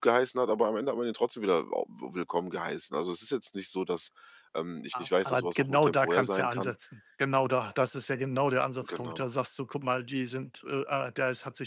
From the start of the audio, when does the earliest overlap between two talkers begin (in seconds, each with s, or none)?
4.9 s